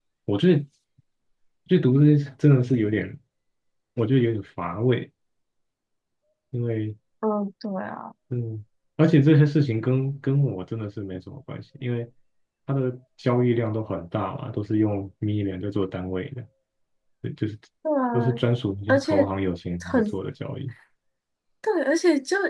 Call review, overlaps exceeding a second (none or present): none